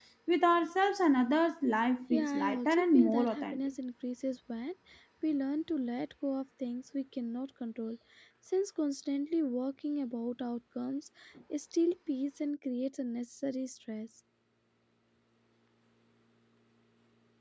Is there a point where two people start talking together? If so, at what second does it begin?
2.1 s

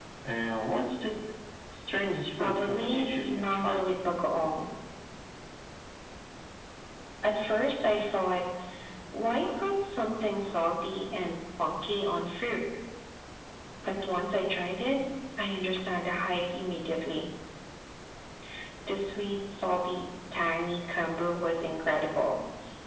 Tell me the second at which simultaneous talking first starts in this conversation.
2.4 s

